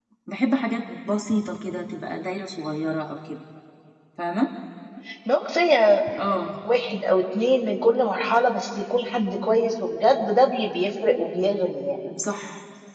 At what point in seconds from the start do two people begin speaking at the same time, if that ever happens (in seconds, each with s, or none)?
none